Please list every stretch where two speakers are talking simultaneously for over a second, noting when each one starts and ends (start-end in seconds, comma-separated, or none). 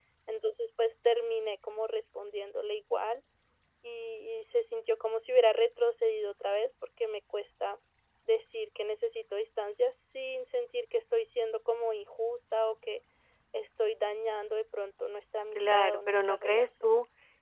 15.6-16.9